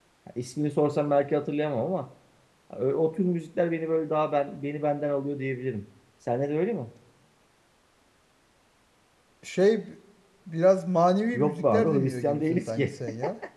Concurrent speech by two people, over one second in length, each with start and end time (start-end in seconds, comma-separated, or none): 11.3-12.8